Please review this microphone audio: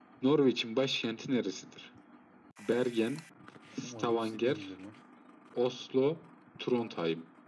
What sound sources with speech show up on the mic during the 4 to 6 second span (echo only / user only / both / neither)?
both